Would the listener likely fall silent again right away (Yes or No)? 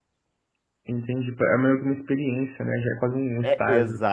No